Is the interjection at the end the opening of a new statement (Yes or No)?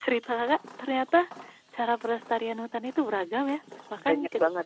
Yes